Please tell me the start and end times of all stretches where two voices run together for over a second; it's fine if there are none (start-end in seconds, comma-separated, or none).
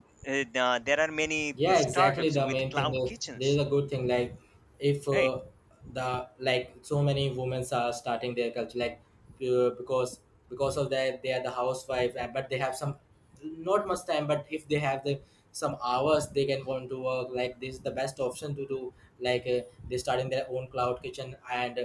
1.7-3.5